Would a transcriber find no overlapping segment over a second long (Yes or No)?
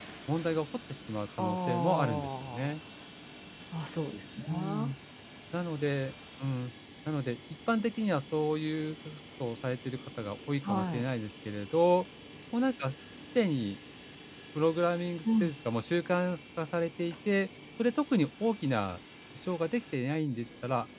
No